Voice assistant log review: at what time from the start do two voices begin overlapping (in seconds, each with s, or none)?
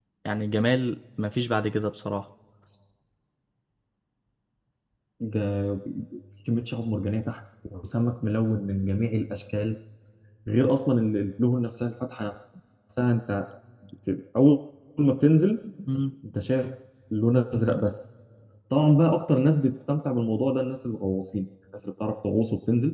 none